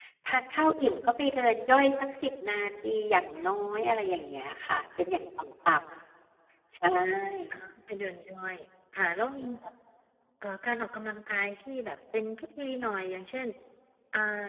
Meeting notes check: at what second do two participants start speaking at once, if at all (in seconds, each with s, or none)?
none